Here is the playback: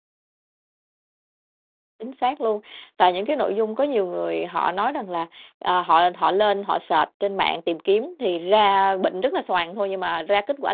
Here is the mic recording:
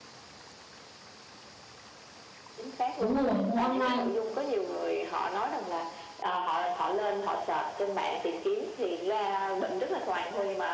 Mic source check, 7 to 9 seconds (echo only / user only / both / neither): echo only